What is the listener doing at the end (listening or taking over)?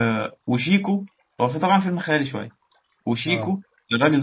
listening